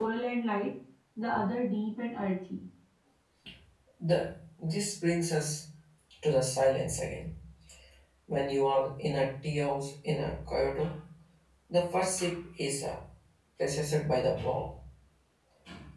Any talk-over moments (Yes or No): No